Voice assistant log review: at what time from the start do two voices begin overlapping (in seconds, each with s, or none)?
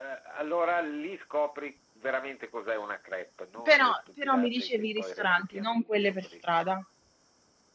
3.6 s